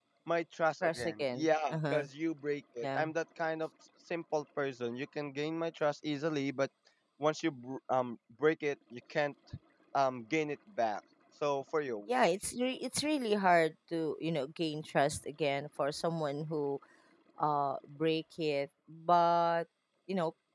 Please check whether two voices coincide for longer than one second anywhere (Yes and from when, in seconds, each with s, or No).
Yes, from 0.8 s